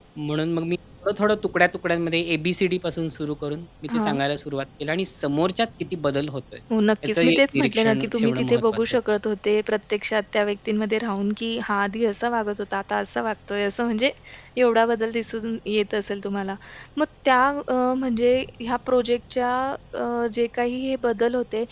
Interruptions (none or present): present